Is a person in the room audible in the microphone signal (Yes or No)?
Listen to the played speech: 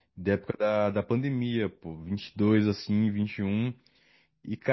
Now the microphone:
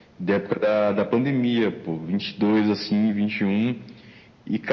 No